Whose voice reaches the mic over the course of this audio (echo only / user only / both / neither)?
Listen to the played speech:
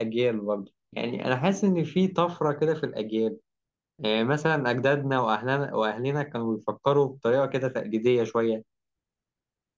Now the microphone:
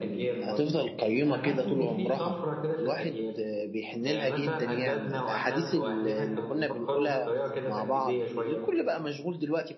both